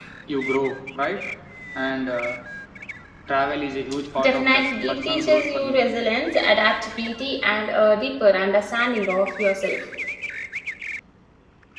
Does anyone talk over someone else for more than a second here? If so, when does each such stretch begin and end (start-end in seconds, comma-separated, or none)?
4.2-5.8